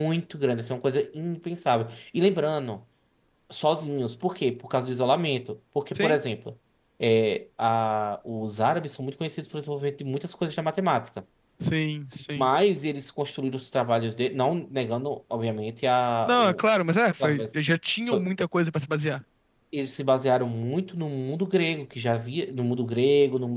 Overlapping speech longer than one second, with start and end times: none

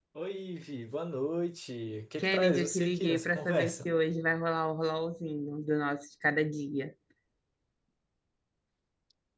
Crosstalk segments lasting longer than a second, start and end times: 2.2-3.9

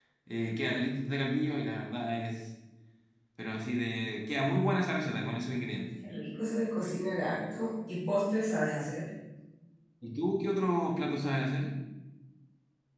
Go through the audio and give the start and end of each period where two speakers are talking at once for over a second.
none

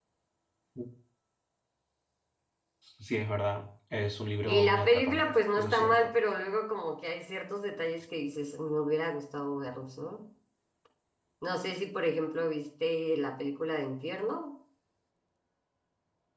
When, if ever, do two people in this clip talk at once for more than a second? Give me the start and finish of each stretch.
4.5-6.1

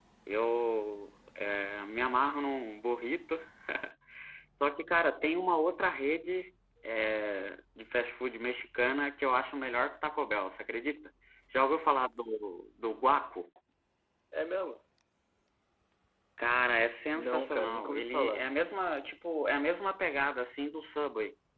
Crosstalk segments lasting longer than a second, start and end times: 17.1-18.5

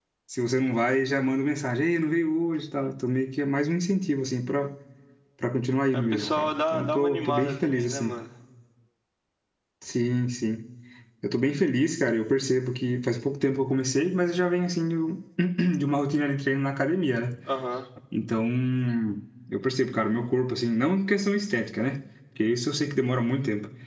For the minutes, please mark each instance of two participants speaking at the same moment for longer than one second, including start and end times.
5.9-8.1

